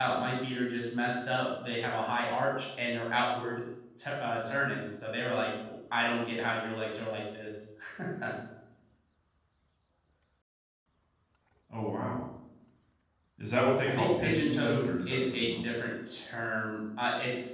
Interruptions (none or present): present